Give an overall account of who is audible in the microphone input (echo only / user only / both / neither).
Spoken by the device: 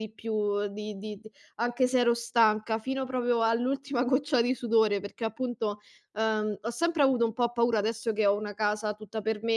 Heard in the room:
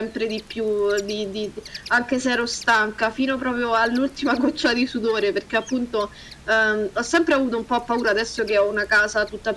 echo only